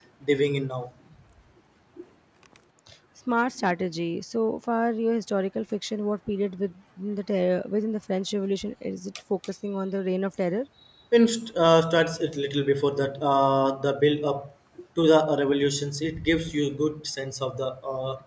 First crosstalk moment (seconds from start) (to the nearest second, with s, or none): none